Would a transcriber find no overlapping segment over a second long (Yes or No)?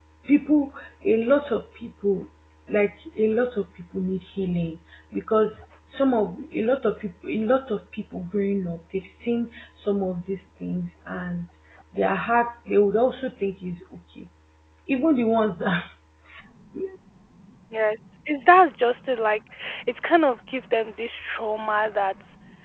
Yes